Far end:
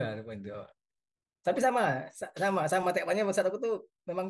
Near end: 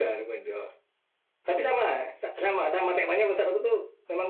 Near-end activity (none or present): none